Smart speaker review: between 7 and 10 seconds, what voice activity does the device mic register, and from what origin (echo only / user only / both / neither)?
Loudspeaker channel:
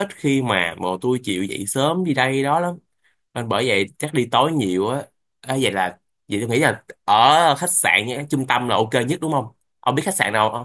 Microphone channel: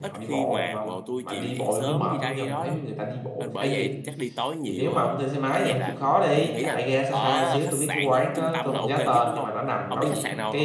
both